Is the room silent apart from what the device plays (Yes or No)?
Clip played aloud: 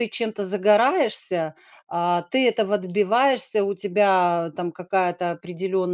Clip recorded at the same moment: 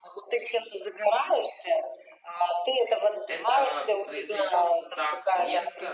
No